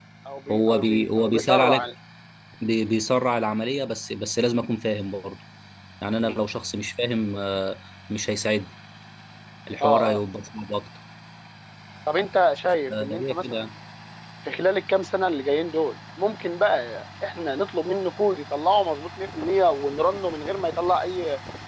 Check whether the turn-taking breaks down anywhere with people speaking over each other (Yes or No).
Yes